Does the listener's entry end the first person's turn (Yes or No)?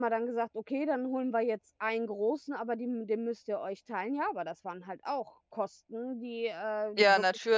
No